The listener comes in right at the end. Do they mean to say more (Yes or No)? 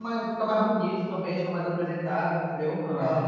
Yes